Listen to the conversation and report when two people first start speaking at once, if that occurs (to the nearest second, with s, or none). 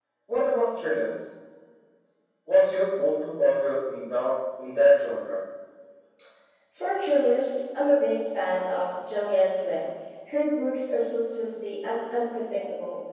none